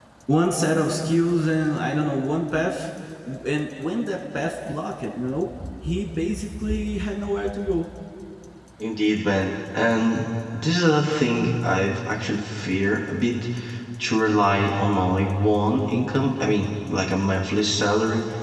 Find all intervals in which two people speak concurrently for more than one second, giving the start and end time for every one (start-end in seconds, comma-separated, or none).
none